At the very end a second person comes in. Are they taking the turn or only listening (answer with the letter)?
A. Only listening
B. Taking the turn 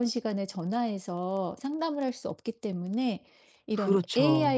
A